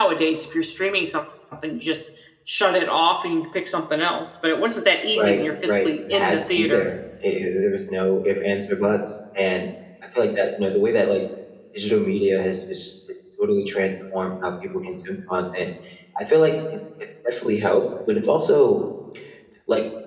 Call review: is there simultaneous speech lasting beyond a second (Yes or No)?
Yes